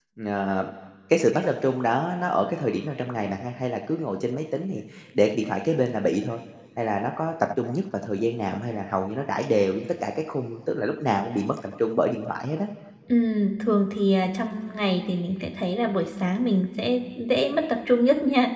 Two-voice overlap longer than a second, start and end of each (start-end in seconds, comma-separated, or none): none